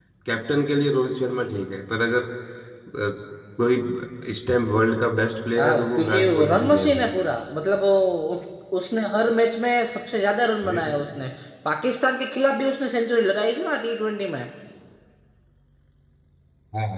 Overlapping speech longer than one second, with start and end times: 5.6-7.1

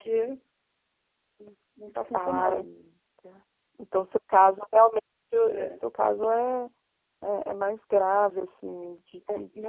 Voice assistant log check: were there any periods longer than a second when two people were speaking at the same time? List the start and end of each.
none

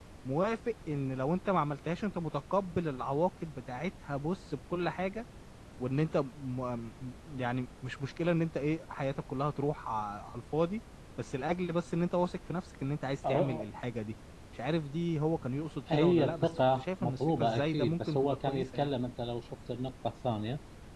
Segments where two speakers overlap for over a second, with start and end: 15.9-18.9

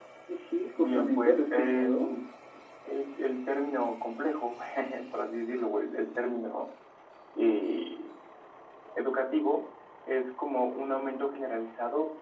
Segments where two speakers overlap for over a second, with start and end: 0.8-2.1

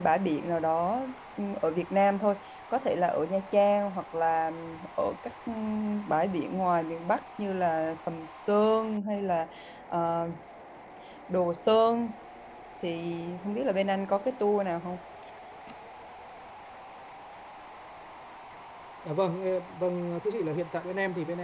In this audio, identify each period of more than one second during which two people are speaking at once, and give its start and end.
none

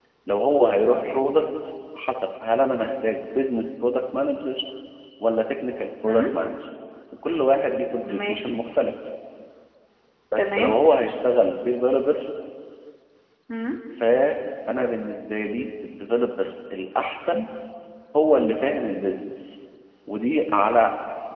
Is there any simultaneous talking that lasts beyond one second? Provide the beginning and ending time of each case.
none

